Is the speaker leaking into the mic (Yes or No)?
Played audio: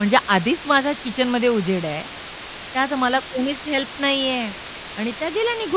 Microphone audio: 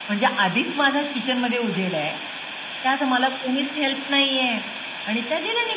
Yes